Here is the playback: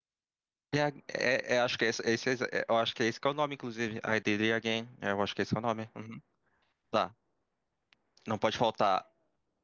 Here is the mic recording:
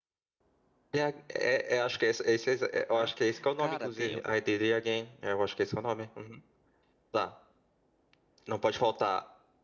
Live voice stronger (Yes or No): No